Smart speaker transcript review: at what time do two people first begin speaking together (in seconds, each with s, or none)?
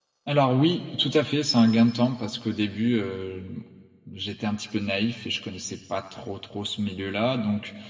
none